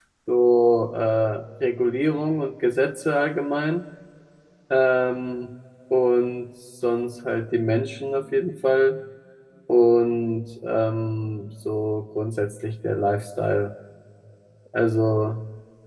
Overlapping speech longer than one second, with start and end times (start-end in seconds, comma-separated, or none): none